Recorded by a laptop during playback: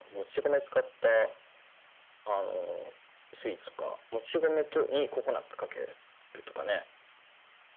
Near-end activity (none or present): none